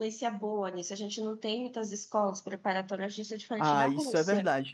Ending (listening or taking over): taking over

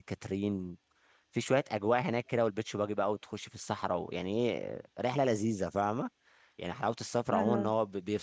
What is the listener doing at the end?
listening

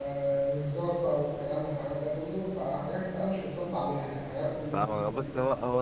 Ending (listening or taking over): taking over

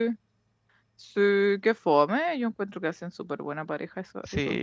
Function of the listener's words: taking over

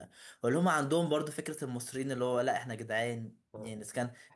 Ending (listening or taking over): listening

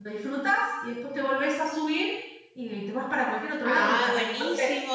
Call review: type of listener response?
taking over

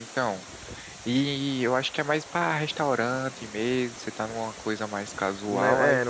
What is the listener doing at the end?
taking over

